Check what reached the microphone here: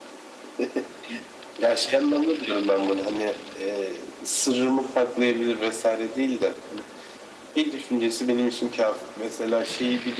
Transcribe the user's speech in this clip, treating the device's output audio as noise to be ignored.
none

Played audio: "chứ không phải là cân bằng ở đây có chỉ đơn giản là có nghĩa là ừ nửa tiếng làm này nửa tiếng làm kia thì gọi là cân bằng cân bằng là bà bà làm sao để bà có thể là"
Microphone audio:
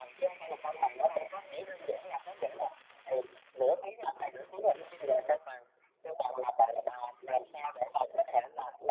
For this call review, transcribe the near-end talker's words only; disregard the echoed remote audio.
none

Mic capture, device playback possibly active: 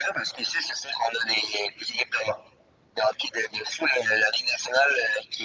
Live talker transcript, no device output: none

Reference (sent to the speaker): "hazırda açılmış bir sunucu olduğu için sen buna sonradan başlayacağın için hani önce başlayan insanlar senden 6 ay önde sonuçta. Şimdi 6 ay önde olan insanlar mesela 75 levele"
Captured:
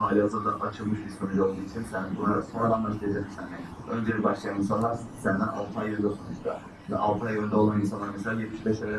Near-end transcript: none

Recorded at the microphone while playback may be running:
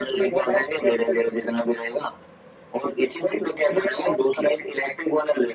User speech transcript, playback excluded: none

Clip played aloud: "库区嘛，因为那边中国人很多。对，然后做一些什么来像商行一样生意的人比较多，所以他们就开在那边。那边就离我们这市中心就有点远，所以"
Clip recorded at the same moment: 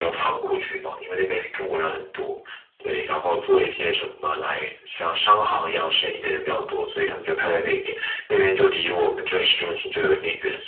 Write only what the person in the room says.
none

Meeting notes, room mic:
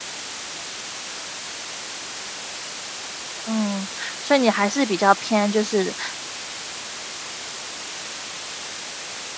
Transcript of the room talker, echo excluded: 嗯，所以你还是比较偏就是

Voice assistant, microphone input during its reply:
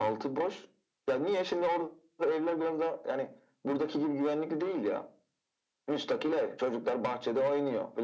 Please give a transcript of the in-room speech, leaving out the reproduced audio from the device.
none

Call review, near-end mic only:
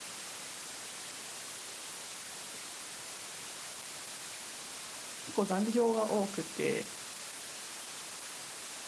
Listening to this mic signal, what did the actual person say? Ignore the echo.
結構残業が多くて、

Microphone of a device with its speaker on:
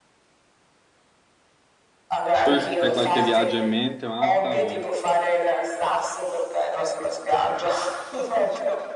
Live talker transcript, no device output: Tu hai qualche viaggio in mente, Marta? o-

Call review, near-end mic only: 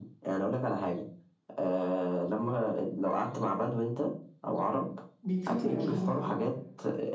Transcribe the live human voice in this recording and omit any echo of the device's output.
بيدفنوا العيش جواه

